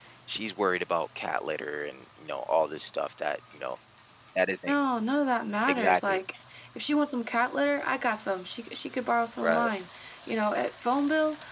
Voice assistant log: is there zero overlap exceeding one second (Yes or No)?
Yes